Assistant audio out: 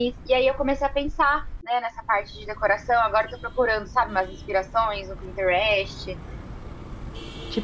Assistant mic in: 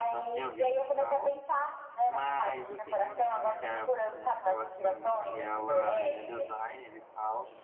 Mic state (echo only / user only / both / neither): both